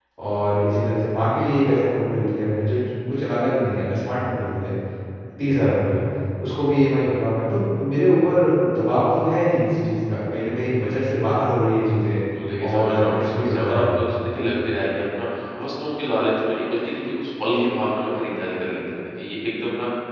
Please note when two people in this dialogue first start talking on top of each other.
12.6 s

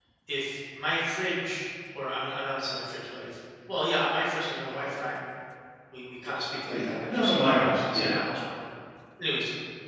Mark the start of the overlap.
6.7 s

